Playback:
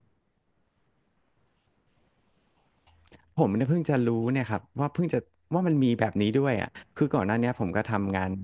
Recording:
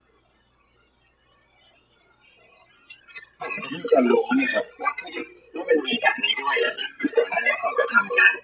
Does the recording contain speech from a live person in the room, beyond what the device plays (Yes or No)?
No